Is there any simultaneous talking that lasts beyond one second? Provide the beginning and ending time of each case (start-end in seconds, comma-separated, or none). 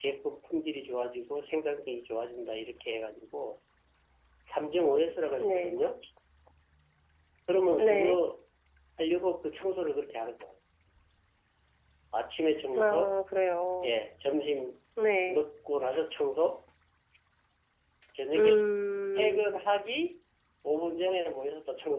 none